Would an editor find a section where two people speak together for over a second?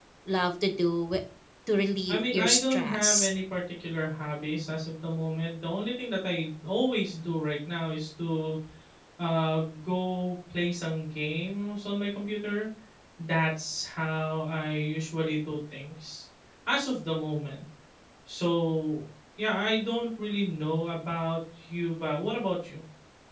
Yes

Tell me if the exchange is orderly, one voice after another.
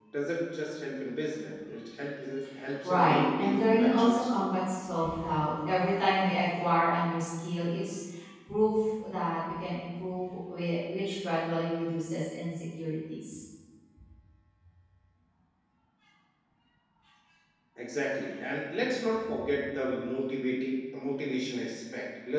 No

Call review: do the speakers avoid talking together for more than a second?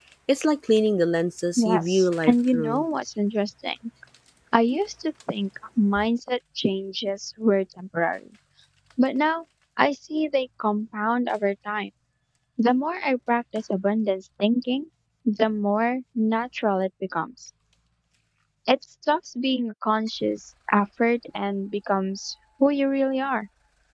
No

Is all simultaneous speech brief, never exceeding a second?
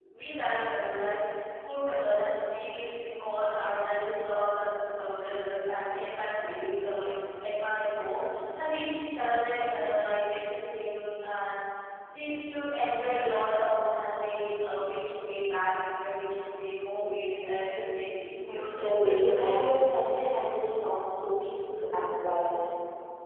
No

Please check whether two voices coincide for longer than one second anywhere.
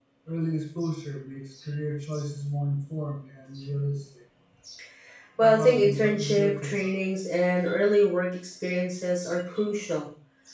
Yes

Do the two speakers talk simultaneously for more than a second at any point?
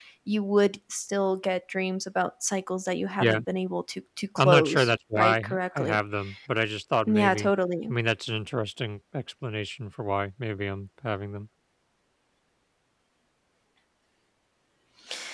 Yes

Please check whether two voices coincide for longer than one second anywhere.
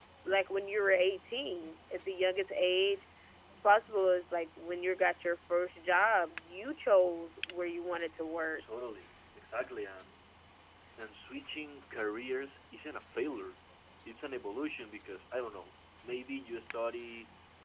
No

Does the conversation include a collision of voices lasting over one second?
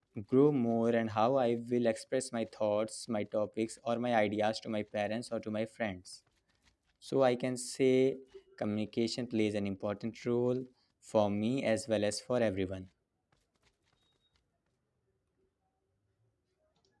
No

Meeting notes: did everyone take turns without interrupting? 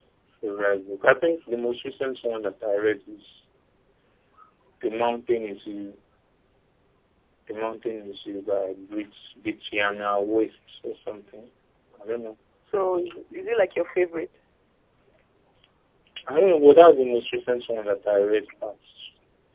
Yes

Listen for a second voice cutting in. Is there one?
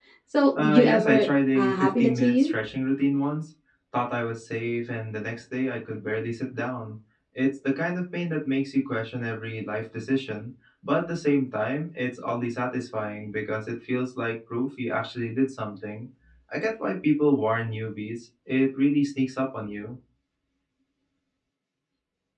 Yes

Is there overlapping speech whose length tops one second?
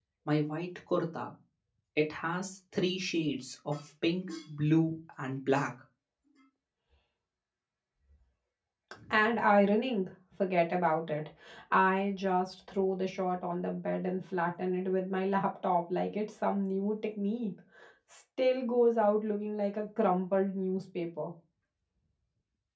No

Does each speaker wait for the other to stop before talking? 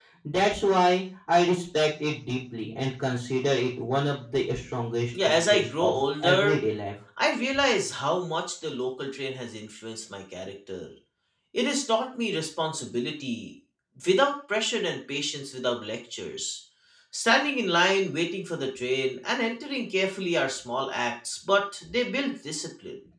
No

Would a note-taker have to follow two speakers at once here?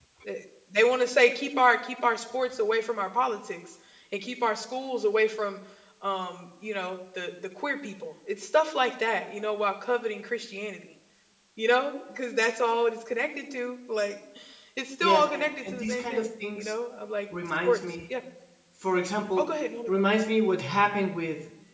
Yes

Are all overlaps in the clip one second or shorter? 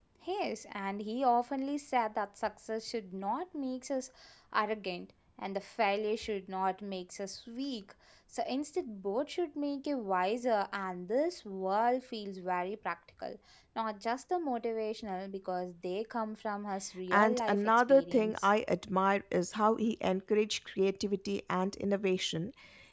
No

